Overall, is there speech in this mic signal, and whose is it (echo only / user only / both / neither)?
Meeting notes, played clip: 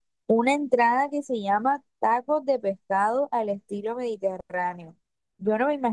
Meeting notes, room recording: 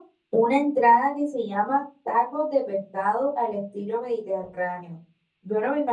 echo only